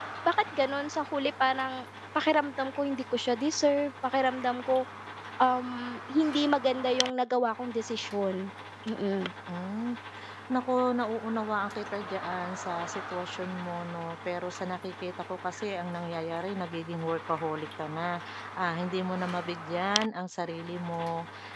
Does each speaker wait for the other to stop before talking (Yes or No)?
Yes